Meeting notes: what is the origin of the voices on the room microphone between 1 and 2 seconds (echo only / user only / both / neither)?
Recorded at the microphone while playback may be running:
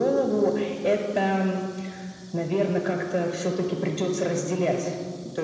echo only